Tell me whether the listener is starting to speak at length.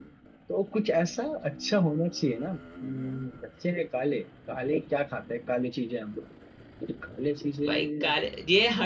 Yes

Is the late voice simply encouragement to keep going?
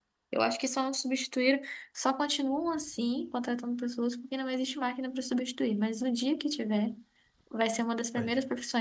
Yes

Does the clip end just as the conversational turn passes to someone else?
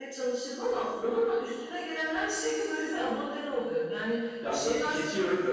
Yes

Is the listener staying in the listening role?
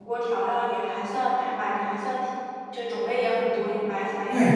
No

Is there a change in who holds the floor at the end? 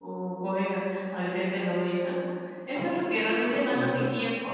No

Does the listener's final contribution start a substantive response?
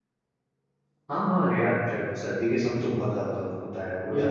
No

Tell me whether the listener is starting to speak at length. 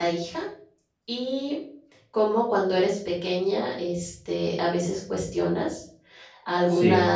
No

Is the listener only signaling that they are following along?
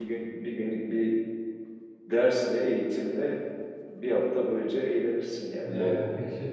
No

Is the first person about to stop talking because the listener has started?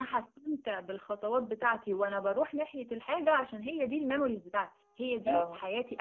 No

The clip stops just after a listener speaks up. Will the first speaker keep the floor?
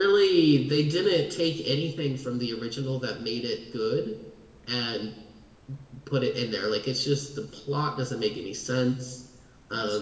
No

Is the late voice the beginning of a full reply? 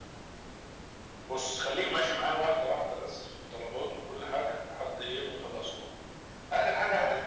No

